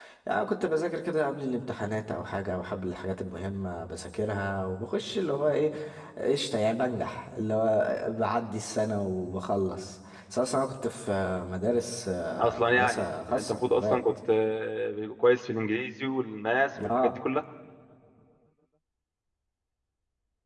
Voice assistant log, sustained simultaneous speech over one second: present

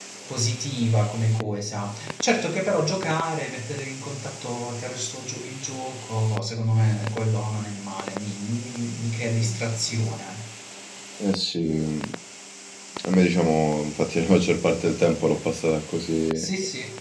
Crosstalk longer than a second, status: none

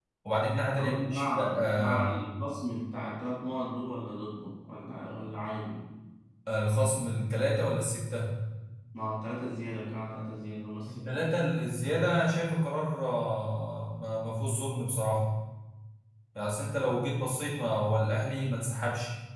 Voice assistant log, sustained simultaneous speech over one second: present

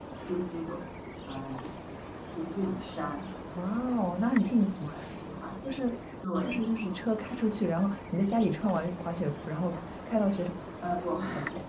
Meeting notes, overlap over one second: none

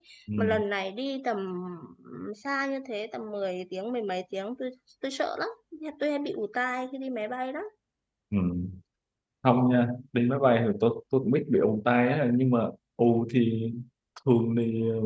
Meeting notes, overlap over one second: none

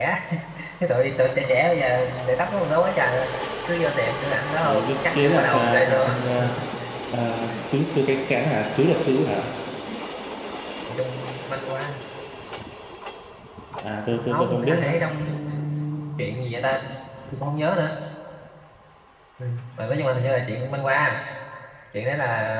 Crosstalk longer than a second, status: present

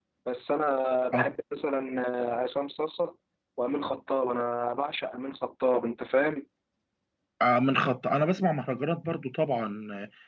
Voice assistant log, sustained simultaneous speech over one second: none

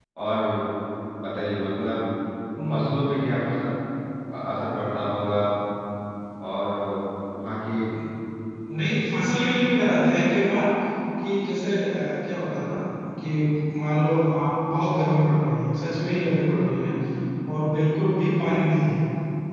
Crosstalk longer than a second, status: none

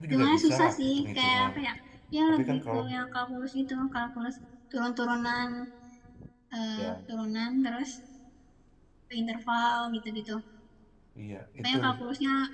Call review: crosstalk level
present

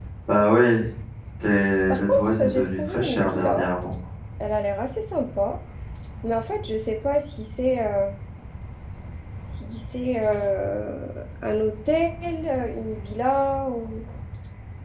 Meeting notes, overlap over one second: present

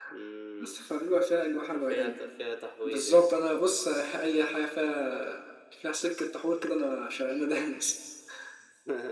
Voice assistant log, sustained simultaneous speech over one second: none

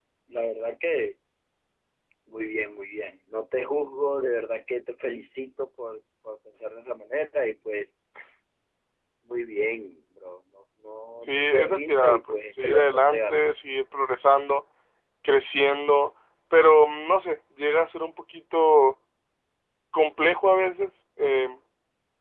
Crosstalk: present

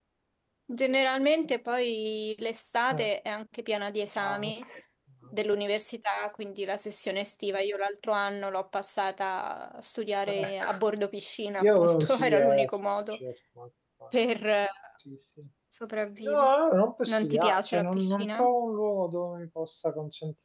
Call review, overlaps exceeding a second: present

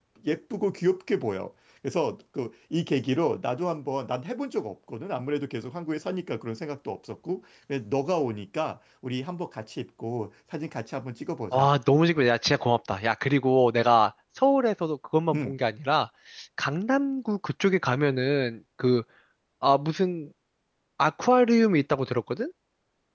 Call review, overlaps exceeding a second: none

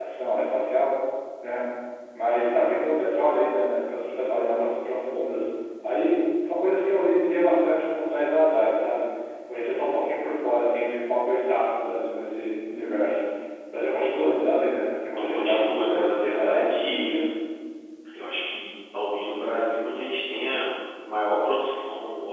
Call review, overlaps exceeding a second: present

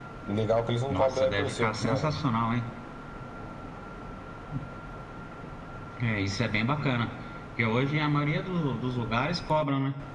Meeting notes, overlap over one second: present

